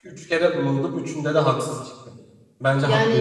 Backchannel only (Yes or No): No